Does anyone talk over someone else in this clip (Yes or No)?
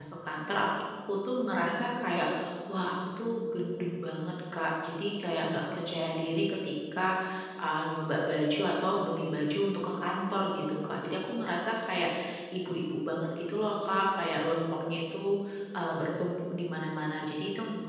No